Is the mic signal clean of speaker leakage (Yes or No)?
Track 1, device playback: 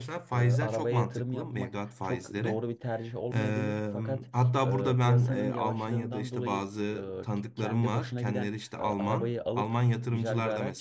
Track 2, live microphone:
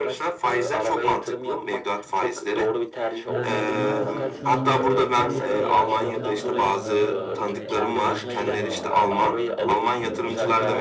No